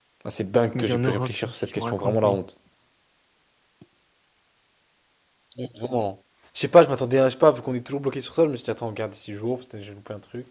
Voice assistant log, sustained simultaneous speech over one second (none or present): present